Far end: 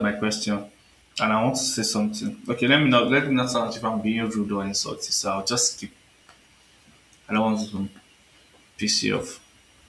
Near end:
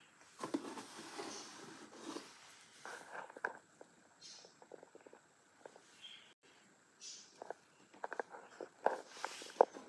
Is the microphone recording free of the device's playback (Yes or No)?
Yes